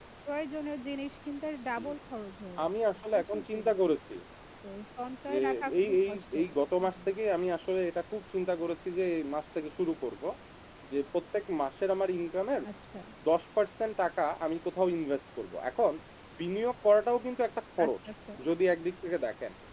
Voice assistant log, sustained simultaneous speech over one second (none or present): present